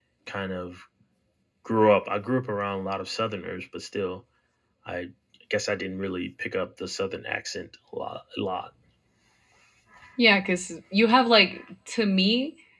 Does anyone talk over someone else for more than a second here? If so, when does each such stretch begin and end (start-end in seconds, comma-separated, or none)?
none